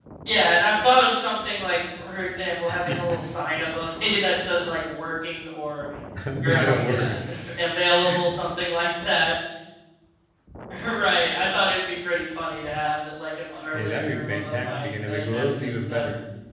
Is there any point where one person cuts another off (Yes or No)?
Yes